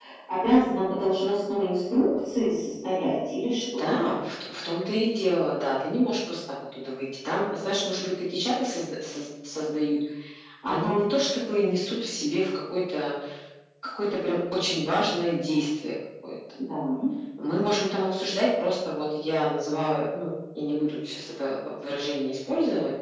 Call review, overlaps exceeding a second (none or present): none